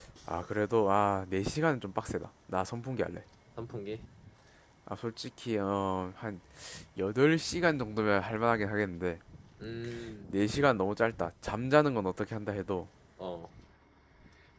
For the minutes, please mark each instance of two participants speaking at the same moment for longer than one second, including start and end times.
none

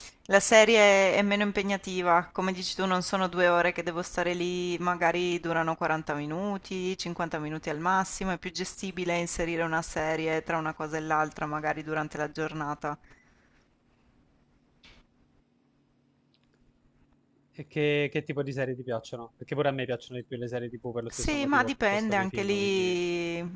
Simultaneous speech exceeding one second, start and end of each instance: 21.1-22.9

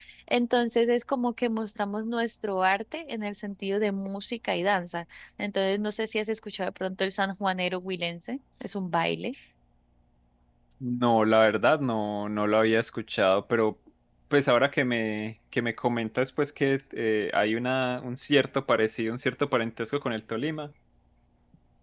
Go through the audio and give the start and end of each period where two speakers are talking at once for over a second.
none

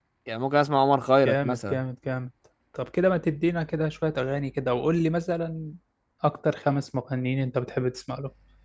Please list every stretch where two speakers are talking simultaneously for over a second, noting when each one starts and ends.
none

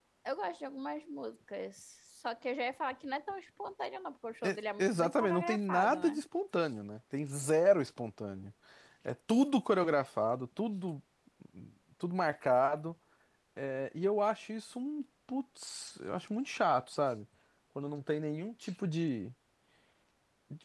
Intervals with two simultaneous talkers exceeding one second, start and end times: 4.4-6.2

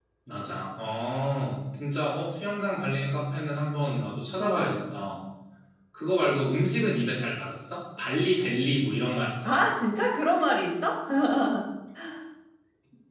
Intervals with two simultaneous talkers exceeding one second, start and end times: none

